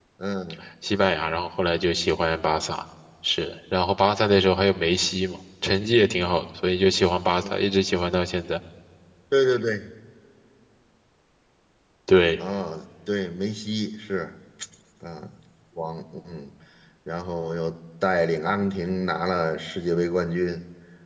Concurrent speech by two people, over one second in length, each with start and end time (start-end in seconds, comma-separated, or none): none